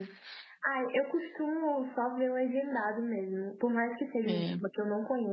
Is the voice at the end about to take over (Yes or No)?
No